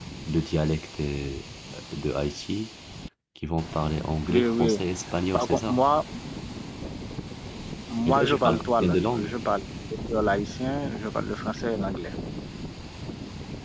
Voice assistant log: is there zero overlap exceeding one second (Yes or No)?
No